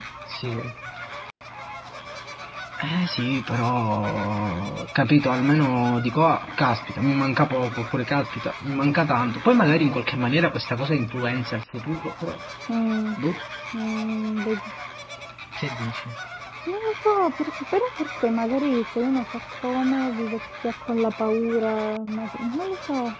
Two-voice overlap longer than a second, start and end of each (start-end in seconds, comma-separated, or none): none